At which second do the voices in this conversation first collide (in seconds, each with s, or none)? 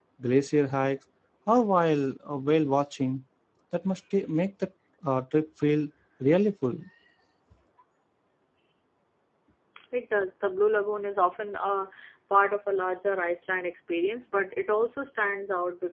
none